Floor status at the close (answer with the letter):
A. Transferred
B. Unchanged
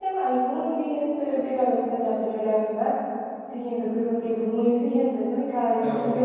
B